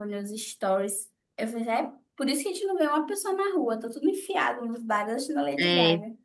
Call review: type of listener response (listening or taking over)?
taking over